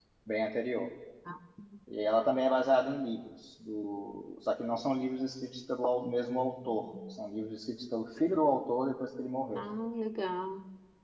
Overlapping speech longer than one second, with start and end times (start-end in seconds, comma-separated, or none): none